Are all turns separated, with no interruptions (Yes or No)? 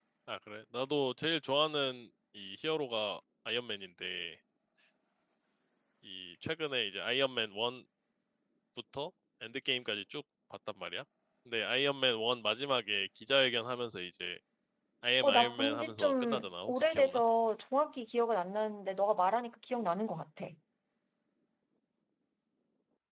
No